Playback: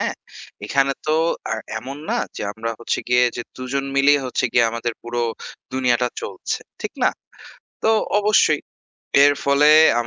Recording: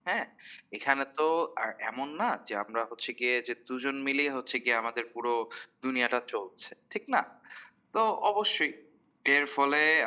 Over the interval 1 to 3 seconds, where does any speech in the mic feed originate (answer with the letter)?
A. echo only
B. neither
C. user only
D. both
A